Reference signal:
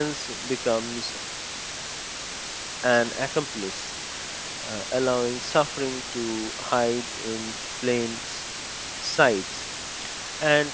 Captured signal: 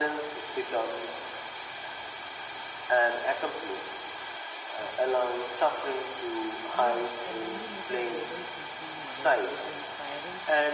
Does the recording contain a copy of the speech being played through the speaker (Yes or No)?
Yes